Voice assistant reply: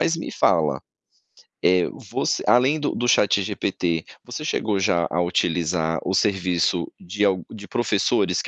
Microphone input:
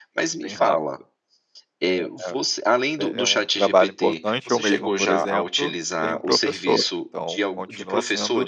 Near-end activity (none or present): present